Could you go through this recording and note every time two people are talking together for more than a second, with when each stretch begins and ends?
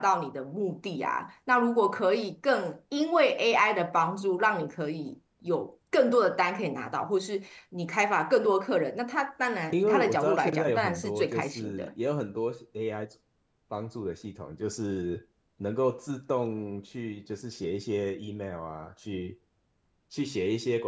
9.7-11.9

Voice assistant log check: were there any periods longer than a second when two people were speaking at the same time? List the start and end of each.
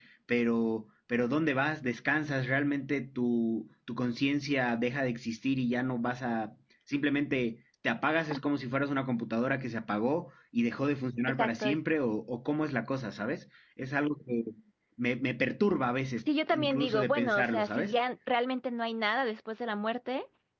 16.5-18.0

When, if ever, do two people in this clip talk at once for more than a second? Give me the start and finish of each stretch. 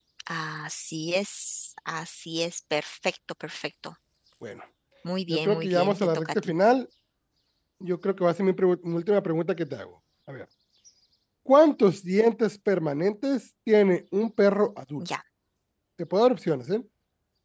5.3-6.5

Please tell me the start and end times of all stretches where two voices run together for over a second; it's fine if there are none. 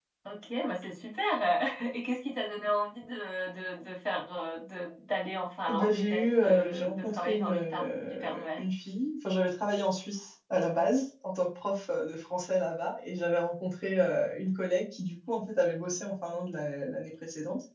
5.7-8.6

